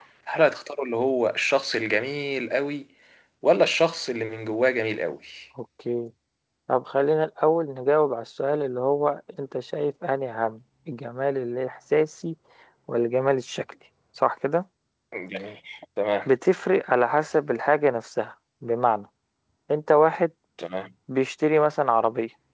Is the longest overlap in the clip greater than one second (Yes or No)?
No